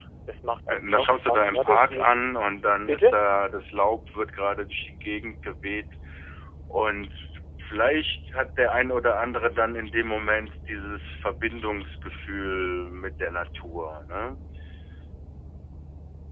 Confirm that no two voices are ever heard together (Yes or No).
No